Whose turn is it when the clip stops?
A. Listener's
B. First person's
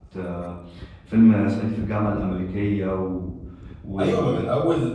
A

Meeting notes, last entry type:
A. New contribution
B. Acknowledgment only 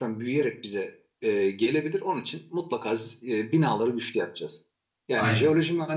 B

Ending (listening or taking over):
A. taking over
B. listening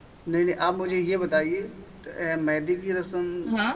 B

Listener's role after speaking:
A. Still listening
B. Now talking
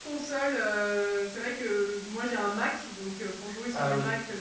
A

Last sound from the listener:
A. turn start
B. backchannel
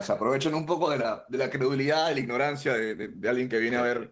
B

